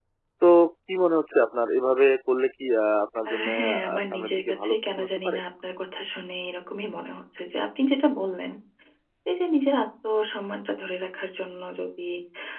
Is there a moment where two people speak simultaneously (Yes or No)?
Yes